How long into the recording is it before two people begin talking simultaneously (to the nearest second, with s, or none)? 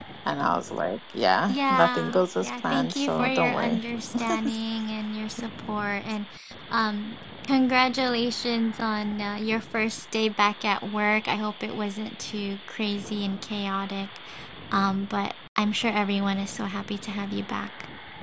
1 s